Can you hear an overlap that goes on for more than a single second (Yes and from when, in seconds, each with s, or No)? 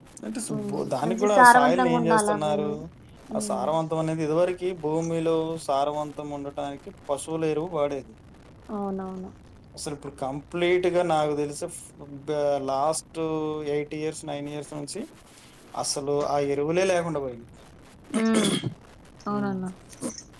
Yes, from 0.6 s